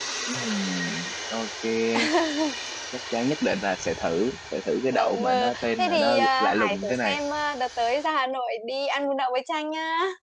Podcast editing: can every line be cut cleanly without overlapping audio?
No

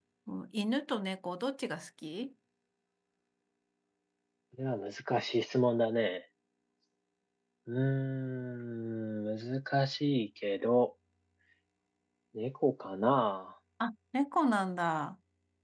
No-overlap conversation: Yes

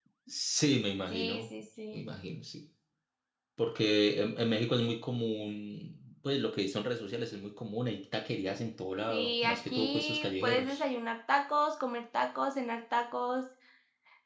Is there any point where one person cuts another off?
Yes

